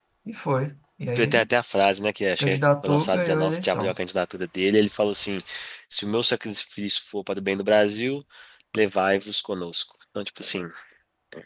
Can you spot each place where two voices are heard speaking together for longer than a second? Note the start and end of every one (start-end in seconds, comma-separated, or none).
2.3-3.9